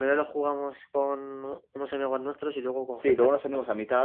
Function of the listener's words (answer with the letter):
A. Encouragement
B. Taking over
B